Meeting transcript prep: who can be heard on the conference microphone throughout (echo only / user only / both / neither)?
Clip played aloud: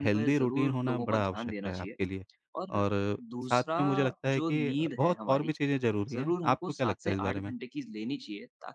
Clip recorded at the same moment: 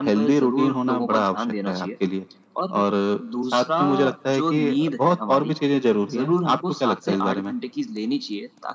echo only